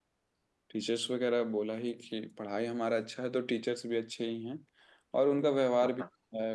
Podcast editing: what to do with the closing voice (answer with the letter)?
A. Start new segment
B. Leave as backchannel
B